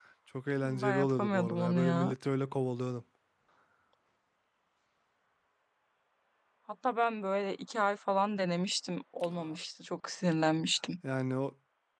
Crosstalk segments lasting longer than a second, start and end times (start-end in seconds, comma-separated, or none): 0.6-2.1